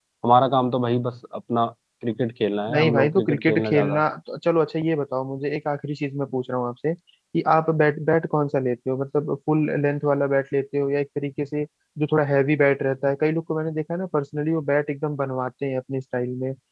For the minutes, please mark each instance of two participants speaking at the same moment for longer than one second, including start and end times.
2.7-4.0

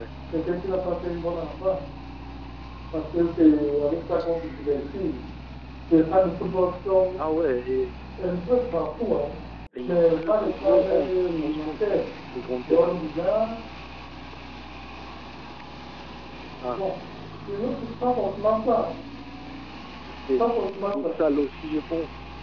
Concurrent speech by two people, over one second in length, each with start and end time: 9.8-12.0

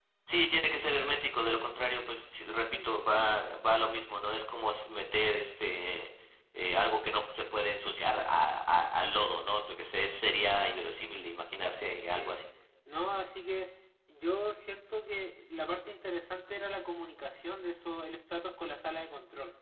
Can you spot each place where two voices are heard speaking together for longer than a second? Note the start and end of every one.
none

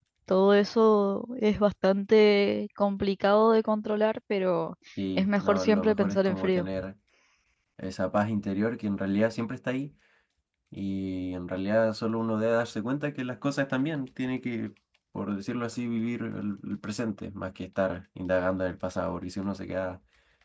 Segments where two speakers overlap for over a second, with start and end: 5.2-6.6

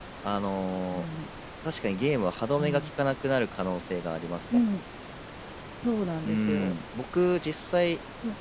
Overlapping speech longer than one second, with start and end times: none

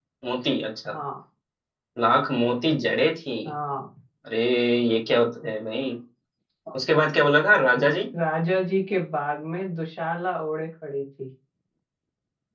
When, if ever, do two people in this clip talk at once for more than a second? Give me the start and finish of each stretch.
none

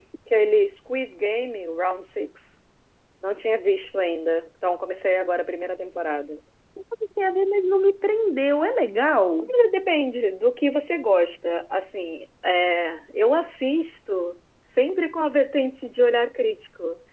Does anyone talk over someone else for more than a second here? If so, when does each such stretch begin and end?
none

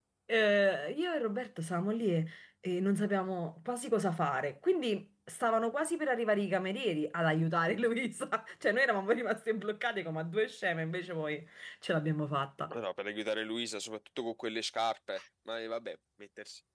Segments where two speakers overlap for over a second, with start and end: none

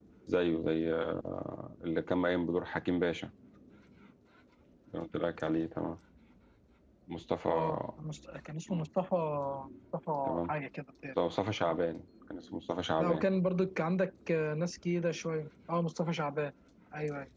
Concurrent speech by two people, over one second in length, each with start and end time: none

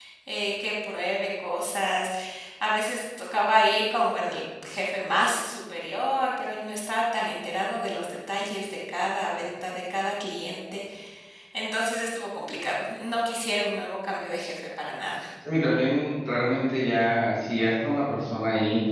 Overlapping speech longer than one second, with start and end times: none

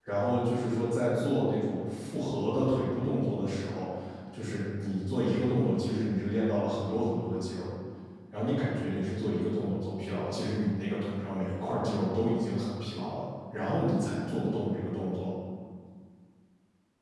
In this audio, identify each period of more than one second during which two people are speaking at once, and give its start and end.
none

